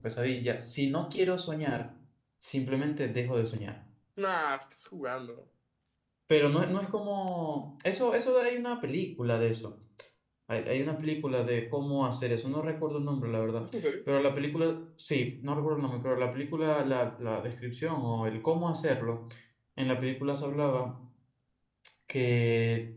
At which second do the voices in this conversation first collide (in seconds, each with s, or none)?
none